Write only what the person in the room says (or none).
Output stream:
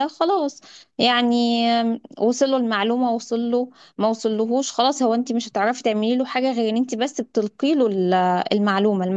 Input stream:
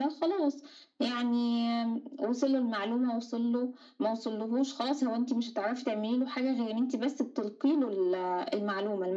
none